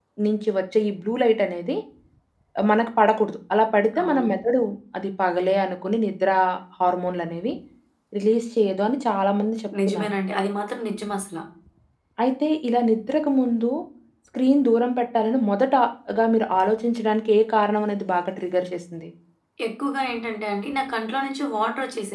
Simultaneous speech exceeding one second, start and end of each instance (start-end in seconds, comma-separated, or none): none